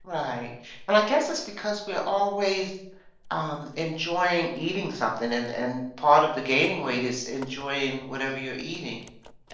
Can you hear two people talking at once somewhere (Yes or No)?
No